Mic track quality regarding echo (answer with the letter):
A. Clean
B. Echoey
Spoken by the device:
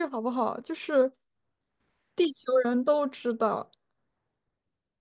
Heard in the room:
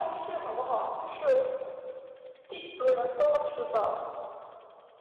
B